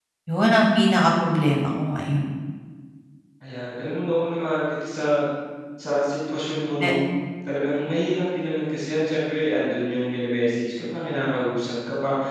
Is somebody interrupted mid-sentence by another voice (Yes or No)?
No